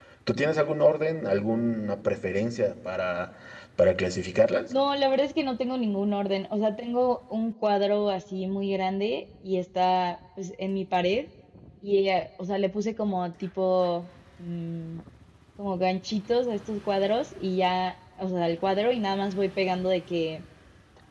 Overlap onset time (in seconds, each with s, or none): none